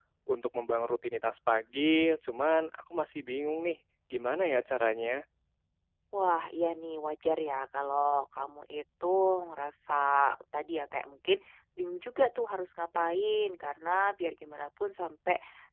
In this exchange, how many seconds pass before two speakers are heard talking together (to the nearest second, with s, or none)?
none